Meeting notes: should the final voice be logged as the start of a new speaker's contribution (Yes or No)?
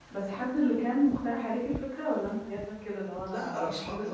Yes